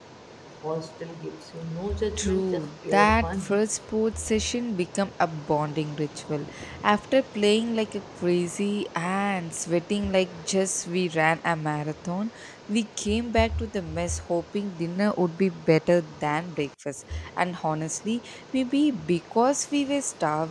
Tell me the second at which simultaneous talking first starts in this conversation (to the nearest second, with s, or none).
2 s